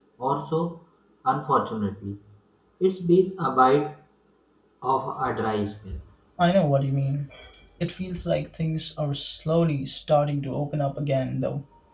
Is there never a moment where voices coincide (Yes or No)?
Yes